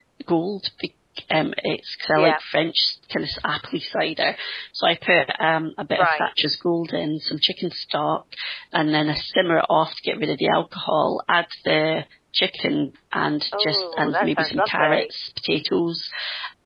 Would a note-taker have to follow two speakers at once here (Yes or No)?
Yes